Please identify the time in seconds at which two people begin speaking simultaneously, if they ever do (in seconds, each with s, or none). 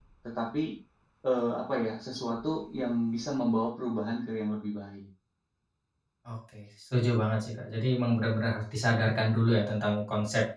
none